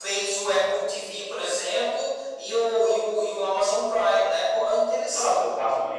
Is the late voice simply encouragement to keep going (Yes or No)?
No